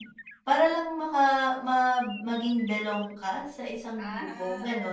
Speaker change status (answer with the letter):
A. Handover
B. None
A